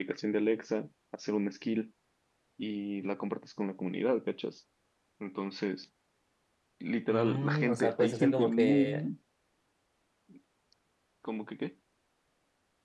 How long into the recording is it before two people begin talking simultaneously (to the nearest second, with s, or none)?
7 s